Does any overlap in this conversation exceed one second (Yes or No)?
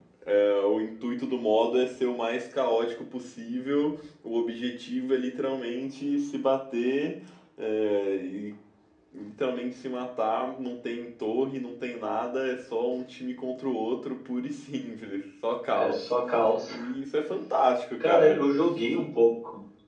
No